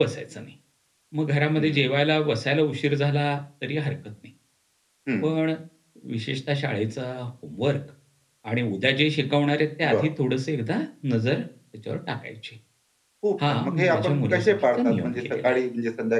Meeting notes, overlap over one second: present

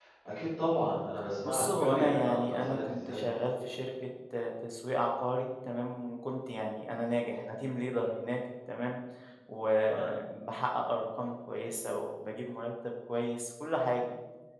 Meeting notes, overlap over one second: present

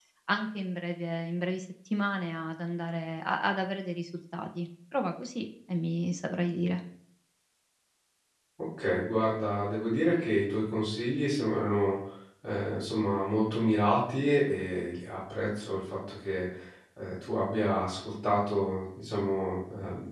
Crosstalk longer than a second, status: none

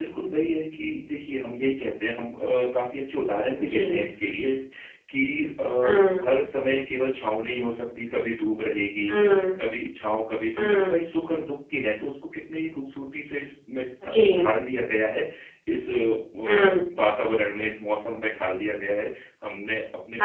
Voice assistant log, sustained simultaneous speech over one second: none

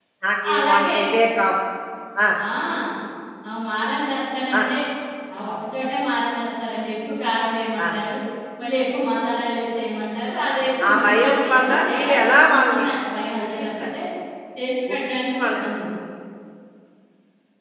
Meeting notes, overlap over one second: present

